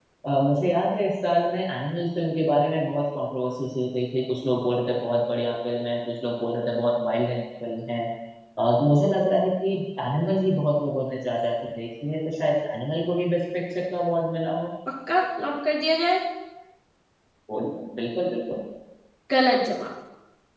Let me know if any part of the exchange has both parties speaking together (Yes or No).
No